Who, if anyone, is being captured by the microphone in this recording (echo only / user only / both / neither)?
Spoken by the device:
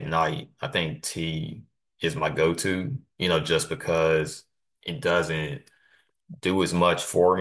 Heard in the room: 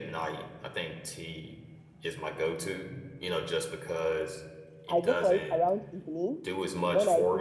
both